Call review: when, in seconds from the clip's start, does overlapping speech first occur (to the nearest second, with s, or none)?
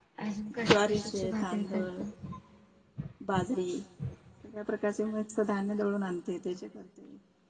1 s